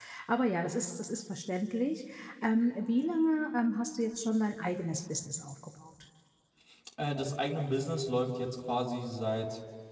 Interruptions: none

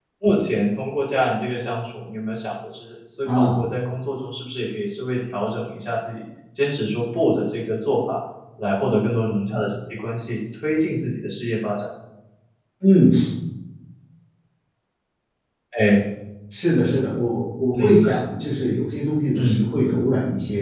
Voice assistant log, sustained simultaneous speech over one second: none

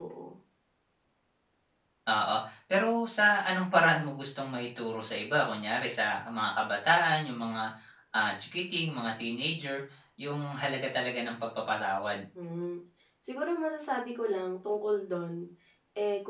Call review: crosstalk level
none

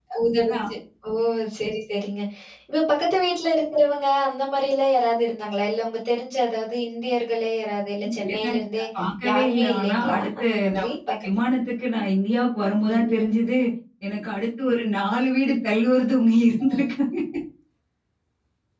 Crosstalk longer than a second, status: present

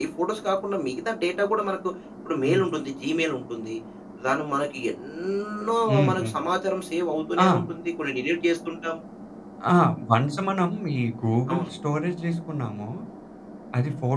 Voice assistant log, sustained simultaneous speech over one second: none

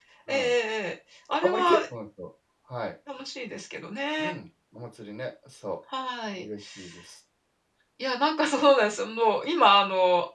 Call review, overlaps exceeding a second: none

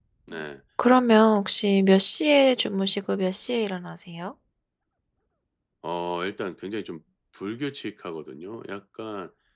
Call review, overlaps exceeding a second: none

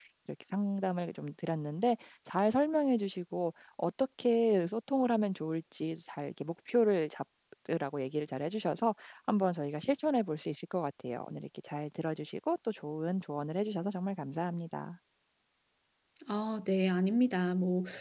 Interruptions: none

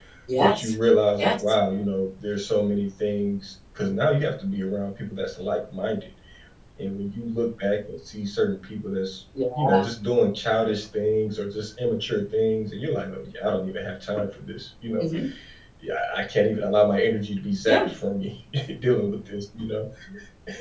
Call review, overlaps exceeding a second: none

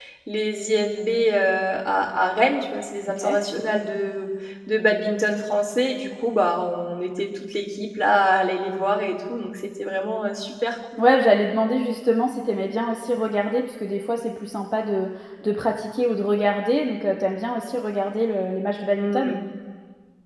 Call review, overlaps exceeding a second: none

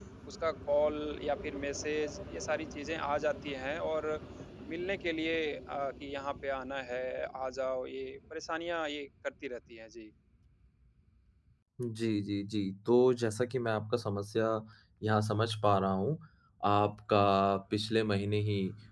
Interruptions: none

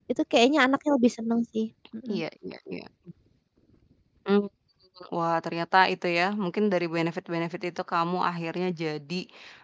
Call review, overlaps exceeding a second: none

